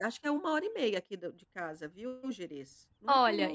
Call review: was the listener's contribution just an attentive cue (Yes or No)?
No